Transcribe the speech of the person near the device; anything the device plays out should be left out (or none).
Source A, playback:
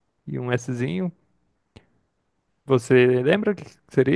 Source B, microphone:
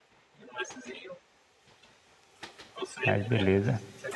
Mas beleza.